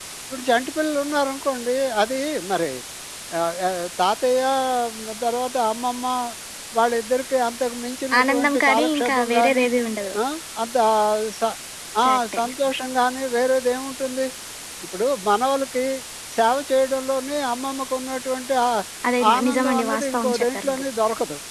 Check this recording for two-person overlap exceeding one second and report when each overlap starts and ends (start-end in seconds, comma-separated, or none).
8.2-9.7, 19.4-20.8